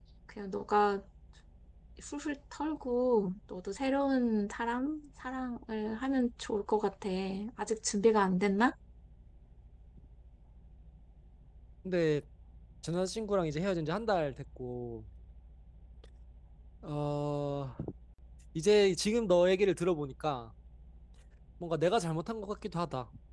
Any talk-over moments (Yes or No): No